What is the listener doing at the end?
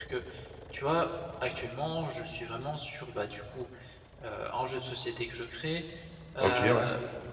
listening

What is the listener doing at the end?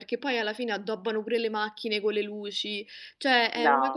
listening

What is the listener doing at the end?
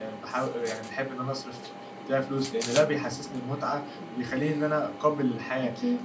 listening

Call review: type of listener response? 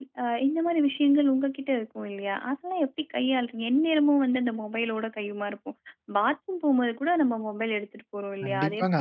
taking over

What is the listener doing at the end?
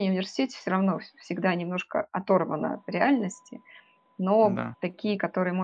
listening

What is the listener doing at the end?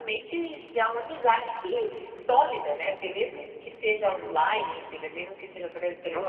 taking over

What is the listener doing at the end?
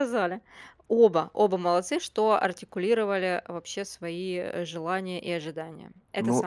taking over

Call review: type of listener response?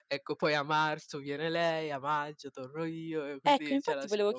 taking over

